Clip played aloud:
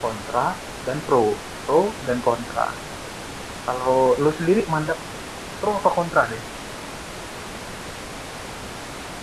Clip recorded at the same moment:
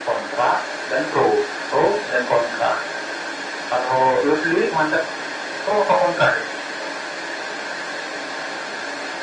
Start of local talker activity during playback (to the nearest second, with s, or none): none